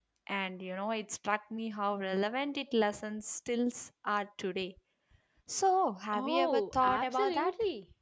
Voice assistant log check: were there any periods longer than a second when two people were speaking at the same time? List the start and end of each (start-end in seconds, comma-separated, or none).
6.1-7.5